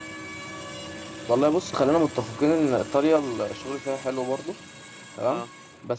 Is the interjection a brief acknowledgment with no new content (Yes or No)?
Yes